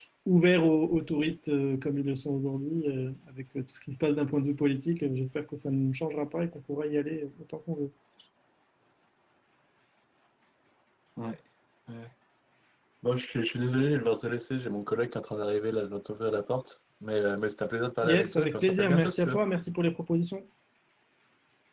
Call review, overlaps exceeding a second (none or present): present